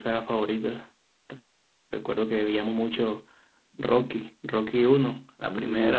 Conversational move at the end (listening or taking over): listening